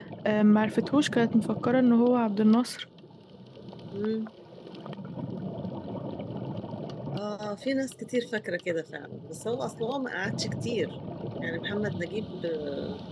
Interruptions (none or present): none